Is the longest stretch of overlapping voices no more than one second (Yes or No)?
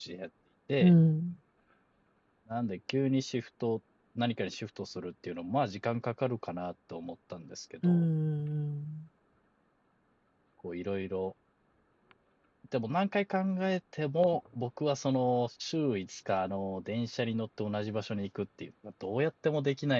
Yes